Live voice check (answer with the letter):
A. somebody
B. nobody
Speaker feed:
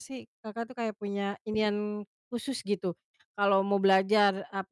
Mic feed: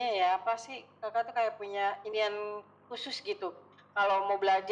B